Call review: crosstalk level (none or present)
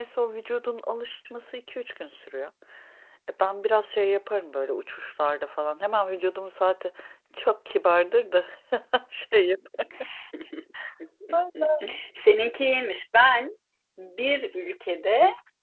none